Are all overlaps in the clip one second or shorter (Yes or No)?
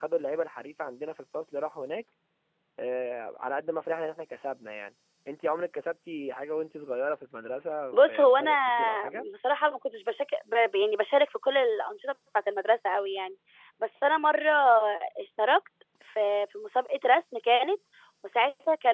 No